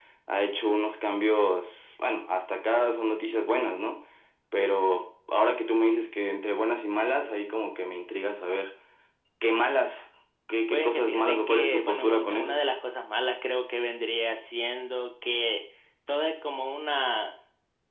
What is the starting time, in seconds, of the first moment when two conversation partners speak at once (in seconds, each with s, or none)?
10.7 s